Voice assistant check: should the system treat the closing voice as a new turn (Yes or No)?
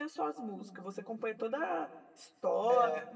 Yes